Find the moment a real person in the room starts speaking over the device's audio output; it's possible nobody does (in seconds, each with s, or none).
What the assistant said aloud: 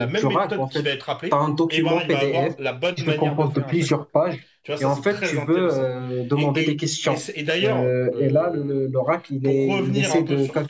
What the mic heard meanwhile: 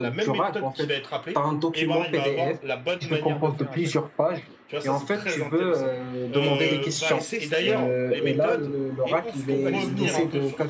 6.3 s